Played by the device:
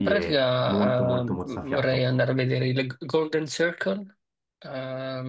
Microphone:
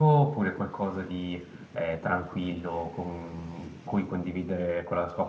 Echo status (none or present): none